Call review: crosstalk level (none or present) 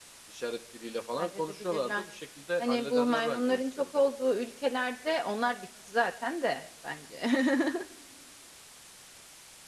present